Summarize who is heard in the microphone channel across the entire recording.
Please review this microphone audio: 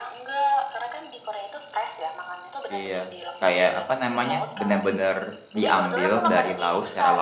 both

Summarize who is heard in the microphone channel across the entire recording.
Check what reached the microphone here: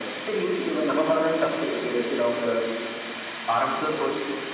echo only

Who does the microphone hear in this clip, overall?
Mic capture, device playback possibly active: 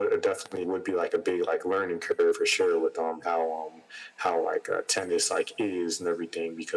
echo only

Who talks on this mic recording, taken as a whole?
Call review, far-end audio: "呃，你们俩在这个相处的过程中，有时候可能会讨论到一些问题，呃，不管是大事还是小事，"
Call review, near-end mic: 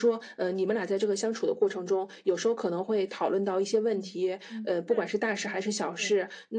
both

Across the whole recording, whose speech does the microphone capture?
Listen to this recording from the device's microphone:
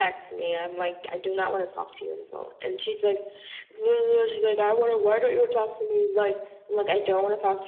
echo only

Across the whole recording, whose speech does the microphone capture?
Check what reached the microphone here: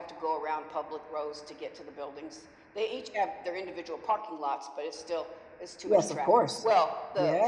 both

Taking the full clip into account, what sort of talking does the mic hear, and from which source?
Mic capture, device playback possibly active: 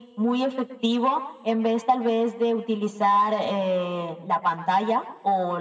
echo only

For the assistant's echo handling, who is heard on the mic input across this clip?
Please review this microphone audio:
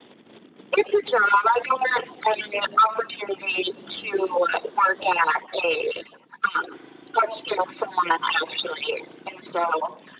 echo only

